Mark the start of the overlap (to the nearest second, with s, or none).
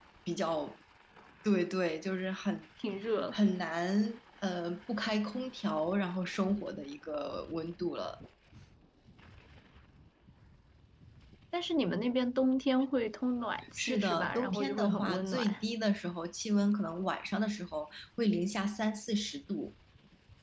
14 s